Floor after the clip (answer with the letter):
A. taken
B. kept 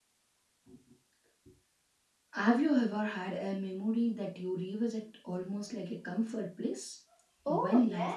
A